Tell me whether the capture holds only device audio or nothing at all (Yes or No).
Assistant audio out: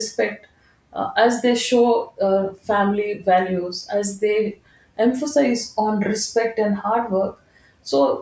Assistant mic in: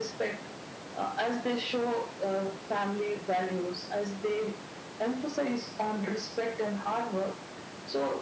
Yes